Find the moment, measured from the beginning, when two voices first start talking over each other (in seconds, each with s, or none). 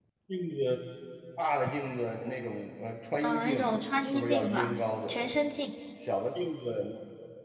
3.2 s